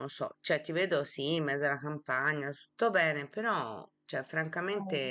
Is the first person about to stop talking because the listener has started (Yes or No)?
No